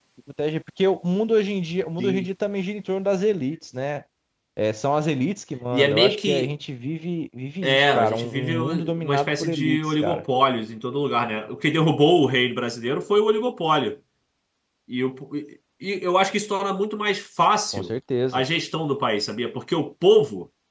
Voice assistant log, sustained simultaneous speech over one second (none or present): present